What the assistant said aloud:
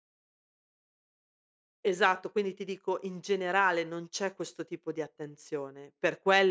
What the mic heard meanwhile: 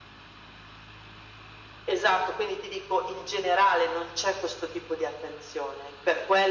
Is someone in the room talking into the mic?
No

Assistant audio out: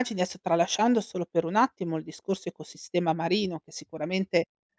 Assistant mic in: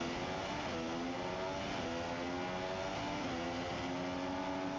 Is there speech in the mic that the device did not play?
No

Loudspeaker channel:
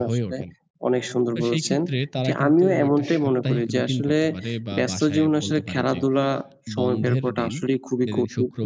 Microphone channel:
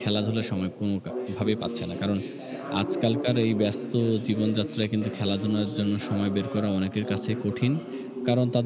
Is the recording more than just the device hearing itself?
Yes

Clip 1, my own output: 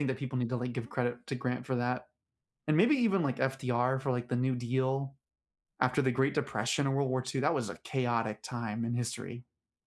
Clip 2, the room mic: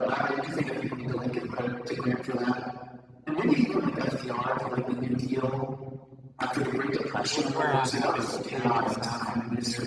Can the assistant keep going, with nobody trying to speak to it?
No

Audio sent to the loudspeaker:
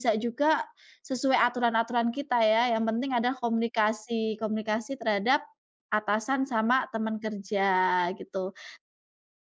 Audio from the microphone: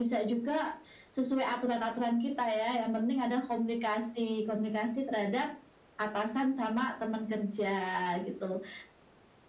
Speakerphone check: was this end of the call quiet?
Yes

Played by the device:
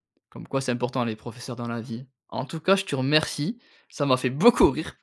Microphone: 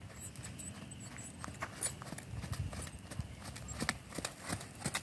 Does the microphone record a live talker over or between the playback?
No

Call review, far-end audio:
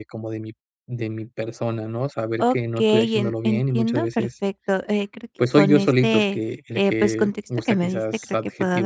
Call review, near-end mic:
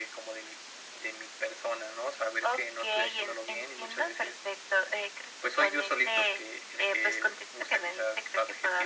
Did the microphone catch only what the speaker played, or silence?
Yes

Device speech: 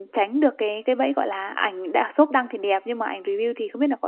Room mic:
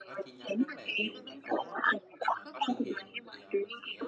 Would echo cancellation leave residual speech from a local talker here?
Yes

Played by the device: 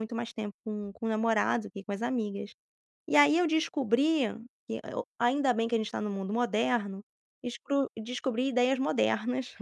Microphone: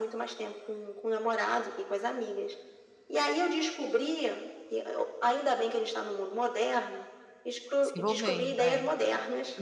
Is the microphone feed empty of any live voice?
No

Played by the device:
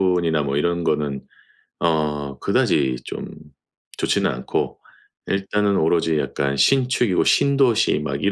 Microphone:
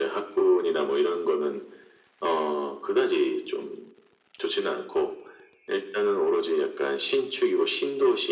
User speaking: No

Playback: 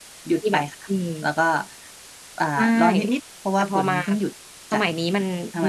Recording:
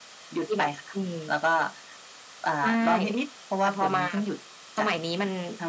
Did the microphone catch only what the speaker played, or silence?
Yes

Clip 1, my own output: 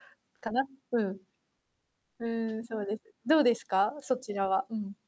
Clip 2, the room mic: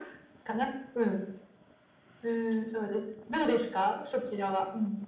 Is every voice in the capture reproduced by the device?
Yes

